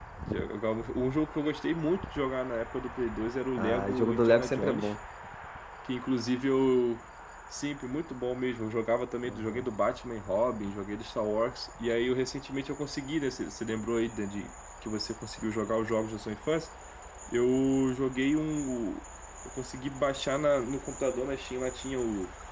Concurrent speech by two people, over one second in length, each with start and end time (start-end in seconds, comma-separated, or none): 3.6-4.9